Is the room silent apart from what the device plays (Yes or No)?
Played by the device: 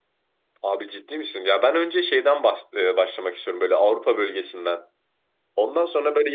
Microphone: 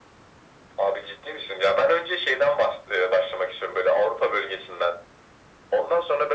Yes